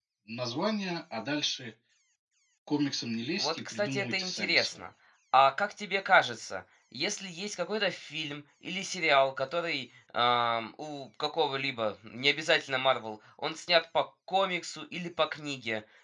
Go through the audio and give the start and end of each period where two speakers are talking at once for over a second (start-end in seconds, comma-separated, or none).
3.4-4.8